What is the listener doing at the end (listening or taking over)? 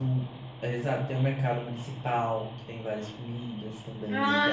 taking over